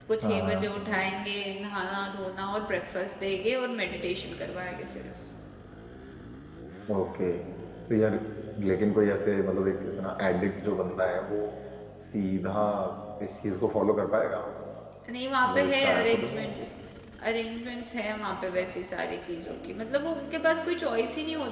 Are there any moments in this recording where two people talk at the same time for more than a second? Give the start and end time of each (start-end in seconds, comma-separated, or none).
15.4-16.6